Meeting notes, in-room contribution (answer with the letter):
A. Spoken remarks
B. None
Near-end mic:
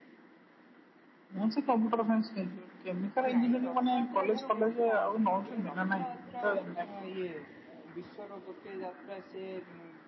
A